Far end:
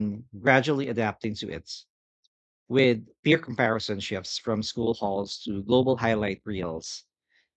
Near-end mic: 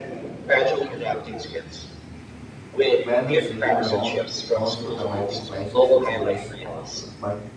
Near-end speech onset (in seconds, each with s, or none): 3.0 s